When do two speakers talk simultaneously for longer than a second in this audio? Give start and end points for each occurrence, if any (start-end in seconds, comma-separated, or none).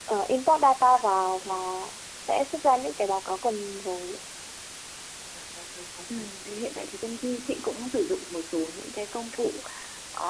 none